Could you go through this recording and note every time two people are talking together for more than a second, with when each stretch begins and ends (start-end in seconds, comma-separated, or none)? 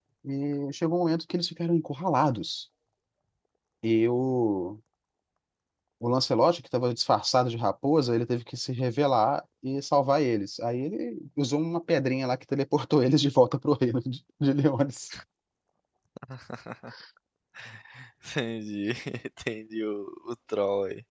none